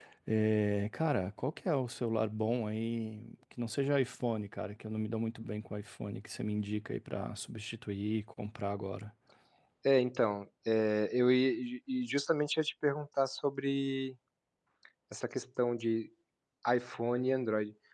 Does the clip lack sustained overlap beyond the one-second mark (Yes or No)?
Yes